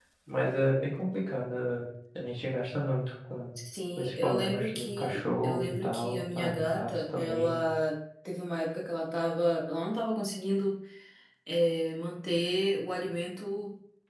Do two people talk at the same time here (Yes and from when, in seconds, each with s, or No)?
Yes, from 4.0 s